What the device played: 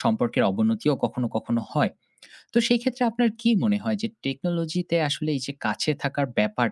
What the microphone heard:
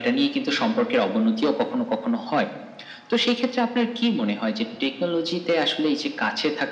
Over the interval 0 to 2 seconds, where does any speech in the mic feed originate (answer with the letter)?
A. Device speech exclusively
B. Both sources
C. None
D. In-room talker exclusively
A